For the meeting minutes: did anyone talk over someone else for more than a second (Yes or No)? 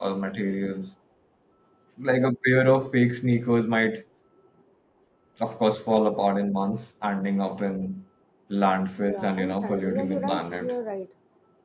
Yes